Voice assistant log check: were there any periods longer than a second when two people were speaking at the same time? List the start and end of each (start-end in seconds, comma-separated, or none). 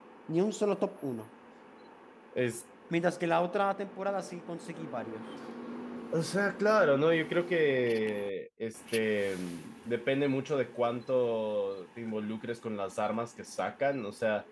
none